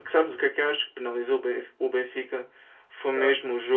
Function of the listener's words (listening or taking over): listening